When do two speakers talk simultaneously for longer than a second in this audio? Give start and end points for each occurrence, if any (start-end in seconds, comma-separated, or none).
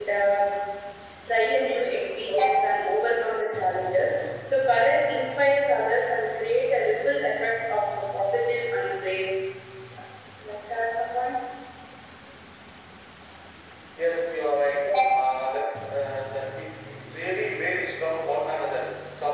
none